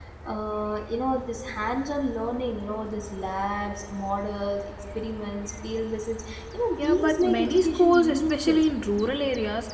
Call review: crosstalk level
present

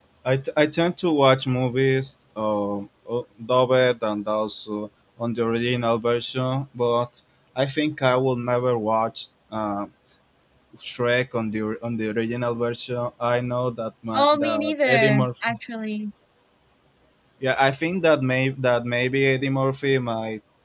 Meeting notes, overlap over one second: present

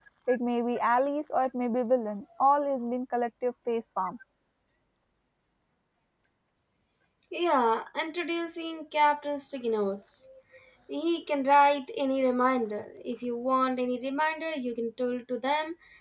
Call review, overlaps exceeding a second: none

